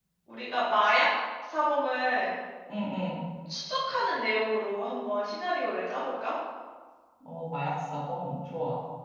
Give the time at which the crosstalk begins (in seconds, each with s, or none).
none